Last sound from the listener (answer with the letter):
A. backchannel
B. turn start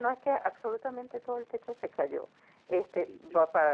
A